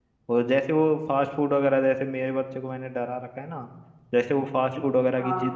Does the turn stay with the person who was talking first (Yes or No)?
Yes